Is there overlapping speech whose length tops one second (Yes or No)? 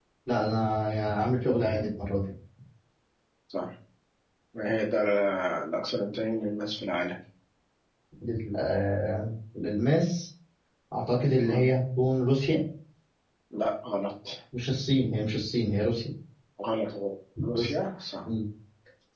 No